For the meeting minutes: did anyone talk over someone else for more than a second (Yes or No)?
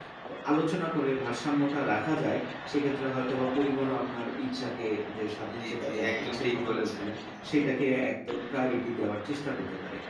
Yes